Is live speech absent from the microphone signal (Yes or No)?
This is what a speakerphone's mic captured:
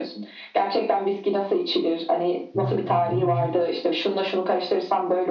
No